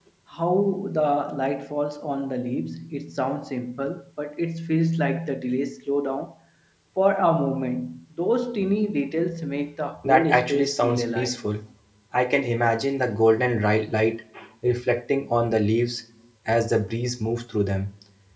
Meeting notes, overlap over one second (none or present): present